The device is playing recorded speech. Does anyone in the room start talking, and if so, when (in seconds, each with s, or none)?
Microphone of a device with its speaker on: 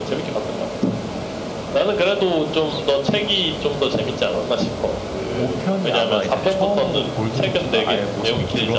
5.3 s